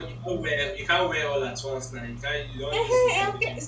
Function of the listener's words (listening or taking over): taking over